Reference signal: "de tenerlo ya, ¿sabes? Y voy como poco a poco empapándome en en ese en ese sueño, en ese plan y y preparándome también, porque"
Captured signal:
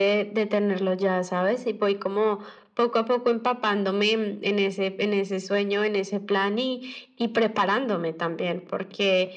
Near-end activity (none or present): none